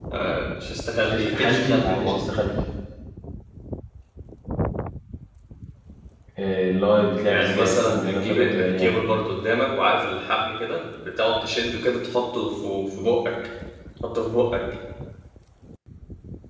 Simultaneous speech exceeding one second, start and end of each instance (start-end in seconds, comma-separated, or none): 1.0-2.3, 7.2-8.9